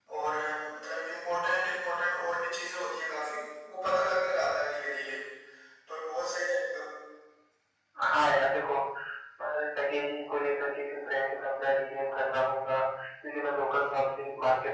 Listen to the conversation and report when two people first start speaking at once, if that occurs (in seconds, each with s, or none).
none